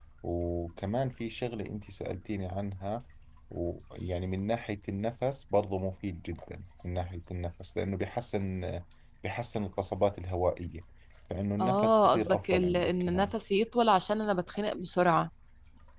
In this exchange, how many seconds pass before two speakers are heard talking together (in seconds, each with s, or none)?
11.6 s